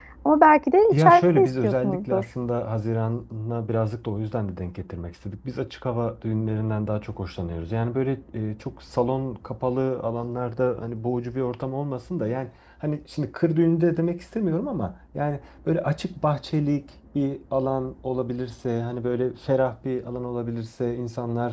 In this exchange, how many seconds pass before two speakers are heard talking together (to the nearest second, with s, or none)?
1 s